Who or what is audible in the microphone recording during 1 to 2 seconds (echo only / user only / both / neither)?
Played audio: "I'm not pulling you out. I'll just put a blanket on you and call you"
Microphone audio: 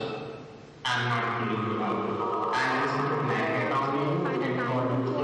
echo only